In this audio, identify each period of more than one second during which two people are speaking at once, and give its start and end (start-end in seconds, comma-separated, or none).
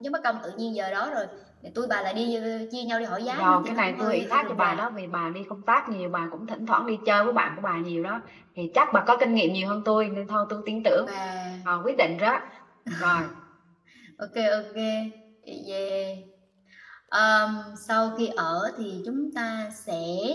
3.3-4.8